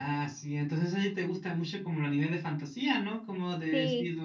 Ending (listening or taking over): listening